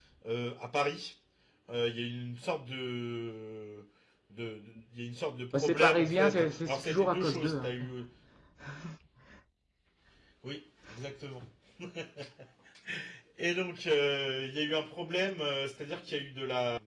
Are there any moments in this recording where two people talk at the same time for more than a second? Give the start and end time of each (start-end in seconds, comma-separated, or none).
5.5-7.8